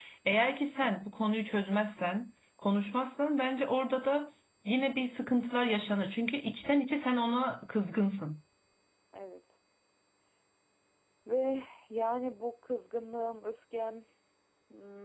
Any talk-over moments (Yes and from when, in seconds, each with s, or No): No